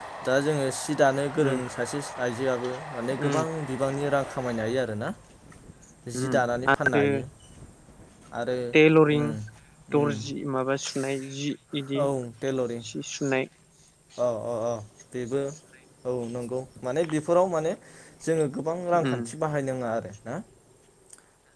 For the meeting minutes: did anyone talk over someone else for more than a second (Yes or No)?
No